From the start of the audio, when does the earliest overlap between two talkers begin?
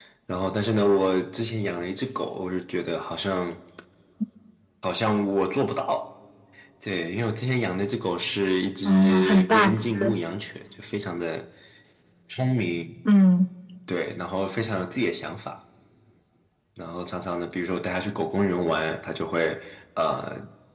9 s

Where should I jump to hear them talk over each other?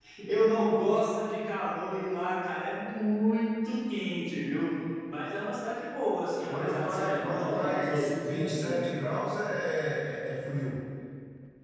6 s

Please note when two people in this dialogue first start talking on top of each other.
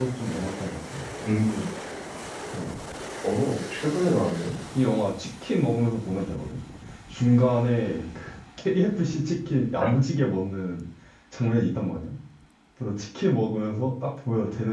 none

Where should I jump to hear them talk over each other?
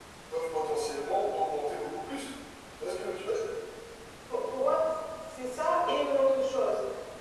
none

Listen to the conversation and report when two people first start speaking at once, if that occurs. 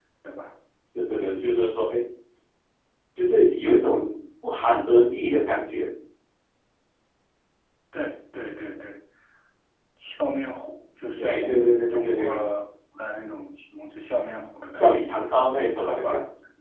11 s

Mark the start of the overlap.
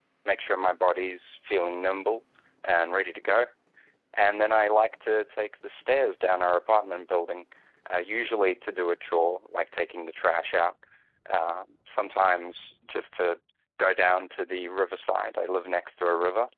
none

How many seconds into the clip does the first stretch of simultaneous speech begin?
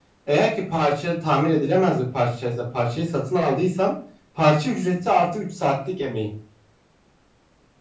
none

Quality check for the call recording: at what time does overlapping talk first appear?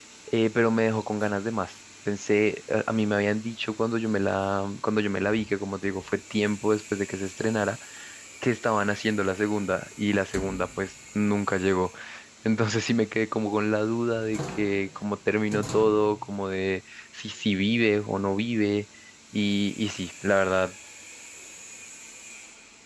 none

